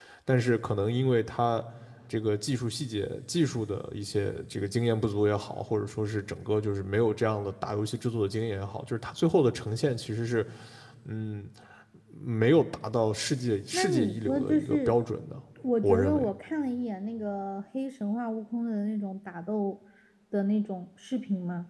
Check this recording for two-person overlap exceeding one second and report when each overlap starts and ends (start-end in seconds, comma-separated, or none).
13.7-15.0